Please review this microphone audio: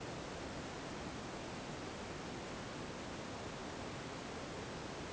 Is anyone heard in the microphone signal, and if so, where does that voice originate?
neither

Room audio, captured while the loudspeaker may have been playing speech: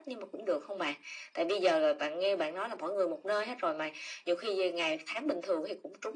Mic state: echo only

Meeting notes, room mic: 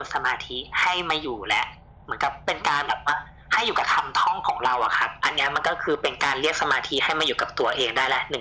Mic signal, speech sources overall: echo only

